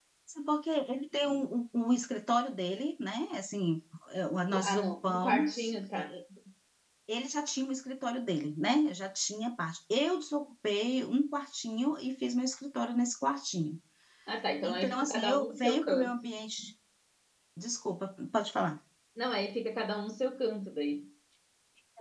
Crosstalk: present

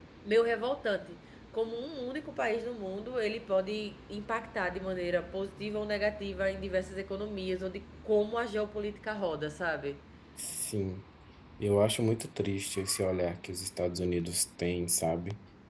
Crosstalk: none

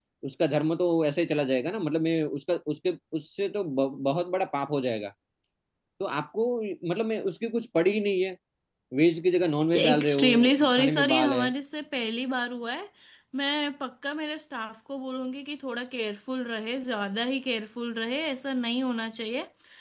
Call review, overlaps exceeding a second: present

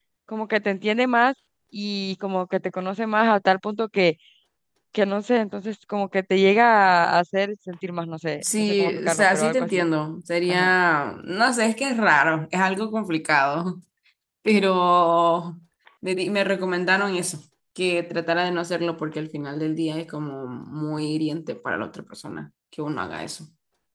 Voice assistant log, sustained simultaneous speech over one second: present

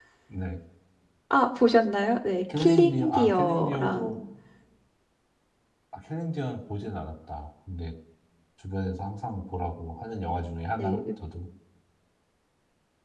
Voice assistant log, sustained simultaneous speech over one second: present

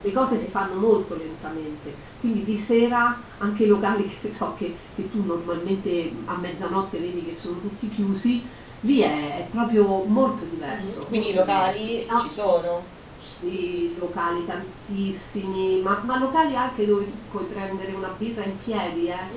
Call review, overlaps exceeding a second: present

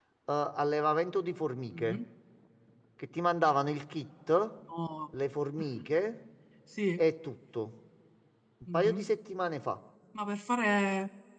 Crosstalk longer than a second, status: none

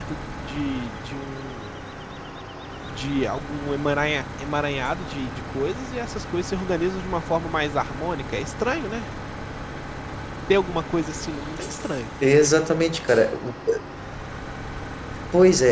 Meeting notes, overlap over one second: none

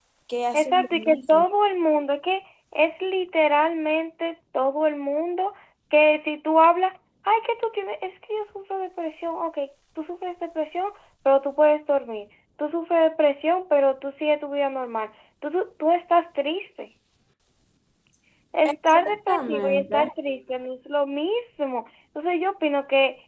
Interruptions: present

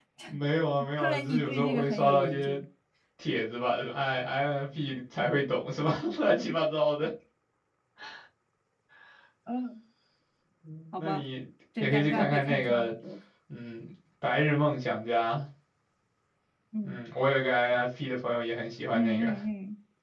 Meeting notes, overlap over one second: present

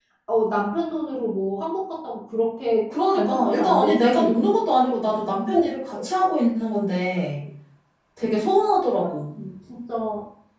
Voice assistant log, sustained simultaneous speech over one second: present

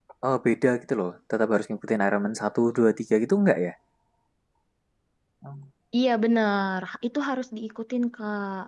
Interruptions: none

